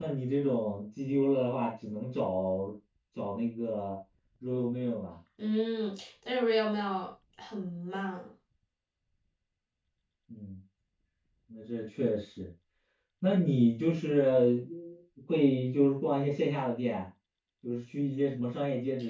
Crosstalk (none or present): none